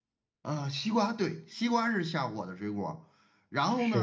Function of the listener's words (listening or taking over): listening